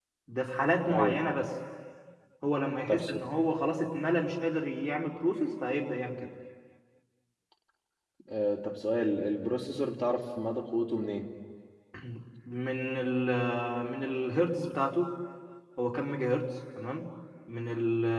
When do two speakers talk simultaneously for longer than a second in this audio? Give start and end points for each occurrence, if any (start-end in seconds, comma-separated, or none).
none